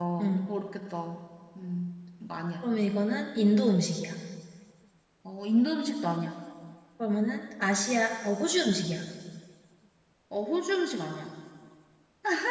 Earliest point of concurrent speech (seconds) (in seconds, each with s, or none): none